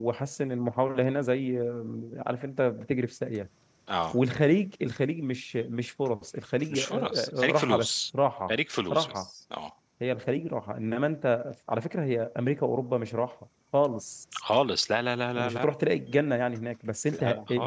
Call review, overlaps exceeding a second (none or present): present